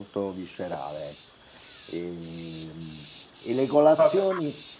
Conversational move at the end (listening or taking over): listening